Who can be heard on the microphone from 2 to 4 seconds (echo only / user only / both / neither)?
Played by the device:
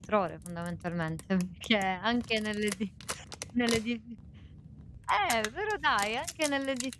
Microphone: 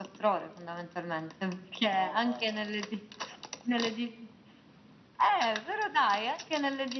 both